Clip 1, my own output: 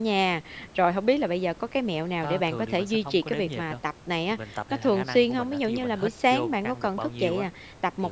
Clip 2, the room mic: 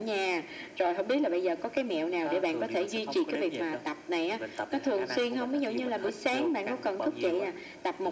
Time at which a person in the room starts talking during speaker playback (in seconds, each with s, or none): none